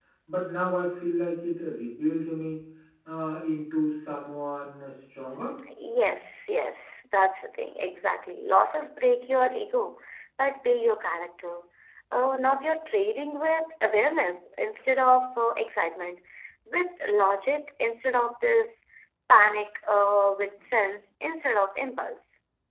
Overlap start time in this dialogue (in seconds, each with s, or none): none